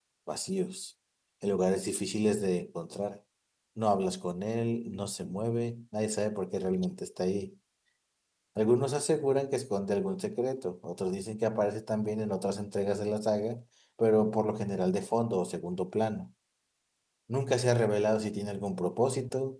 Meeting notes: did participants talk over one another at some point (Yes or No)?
No